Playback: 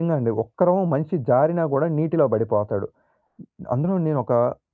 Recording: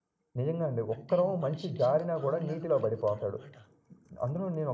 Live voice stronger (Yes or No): No